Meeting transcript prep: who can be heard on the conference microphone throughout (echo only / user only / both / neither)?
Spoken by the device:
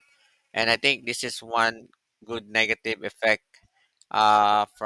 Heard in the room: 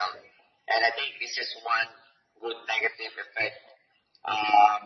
echo only